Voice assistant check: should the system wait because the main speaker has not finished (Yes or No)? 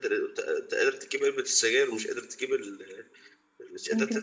Yes